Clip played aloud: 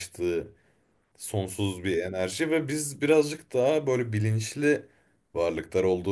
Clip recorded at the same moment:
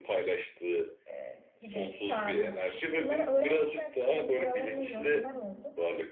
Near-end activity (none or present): present